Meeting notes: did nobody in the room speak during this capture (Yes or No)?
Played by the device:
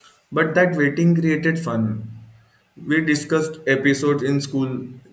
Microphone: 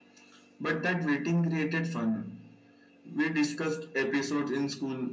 Yes